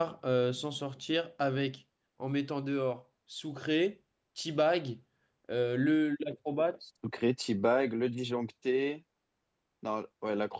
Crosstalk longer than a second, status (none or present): none